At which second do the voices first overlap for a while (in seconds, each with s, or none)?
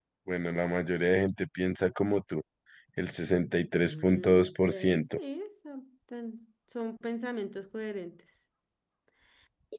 3.8 s